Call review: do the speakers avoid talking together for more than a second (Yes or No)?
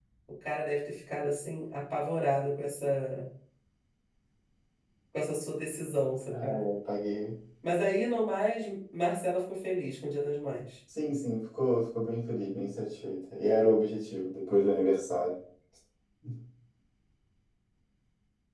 Yes